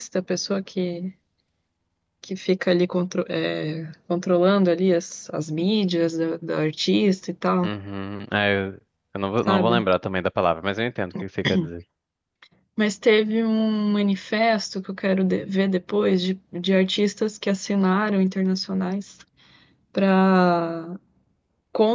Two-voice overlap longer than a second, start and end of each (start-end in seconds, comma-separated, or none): none